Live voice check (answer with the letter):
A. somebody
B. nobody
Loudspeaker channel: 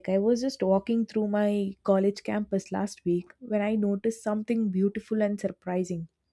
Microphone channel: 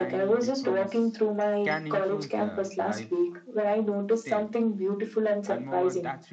A